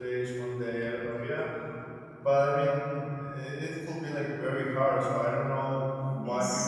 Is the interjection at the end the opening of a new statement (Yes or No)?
No